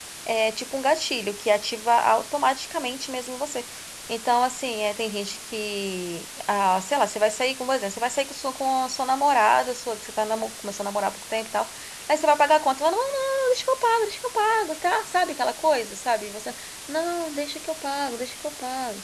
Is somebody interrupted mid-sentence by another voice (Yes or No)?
No